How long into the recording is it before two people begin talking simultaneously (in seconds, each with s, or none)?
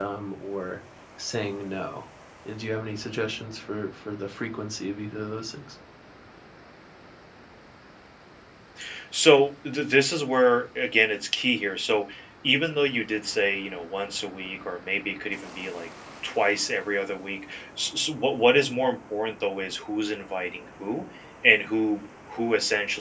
none